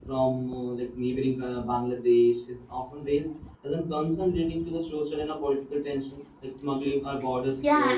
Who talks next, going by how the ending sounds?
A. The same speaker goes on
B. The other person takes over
B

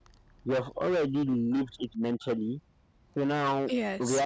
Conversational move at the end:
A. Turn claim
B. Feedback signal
B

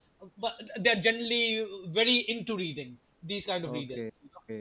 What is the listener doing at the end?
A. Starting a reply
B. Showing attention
A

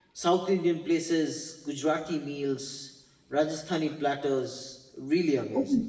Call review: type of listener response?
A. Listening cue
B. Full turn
B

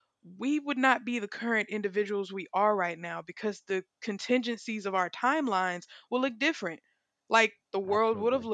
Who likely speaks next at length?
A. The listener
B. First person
B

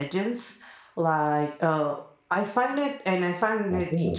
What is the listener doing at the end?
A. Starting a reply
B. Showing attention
B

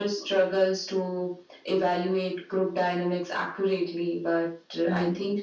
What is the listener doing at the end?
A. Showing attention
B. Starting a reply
A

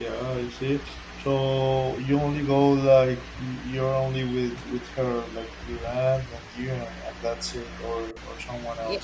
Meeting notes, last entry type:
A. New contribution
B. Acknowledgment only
A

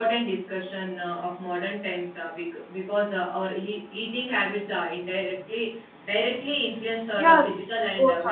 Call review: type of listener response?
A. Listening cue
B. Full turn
B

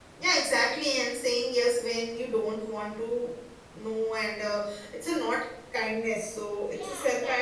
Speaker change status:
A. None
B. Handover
B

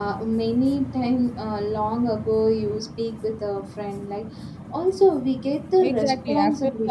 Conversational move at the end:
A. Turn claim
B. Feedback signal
A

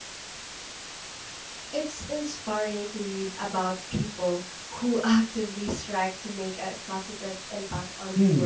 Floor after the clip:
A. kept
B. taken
B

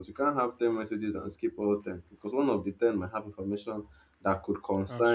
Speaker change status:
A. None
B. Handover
A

